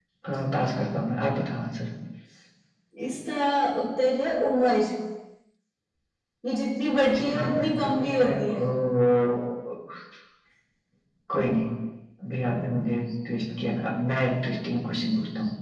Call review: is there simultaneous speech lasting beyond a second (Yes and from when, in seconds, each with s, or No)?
Yes, from 7.2 s